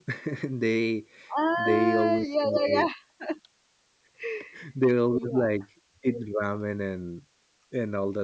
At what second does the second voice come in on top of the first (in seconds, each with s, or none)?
1.6 s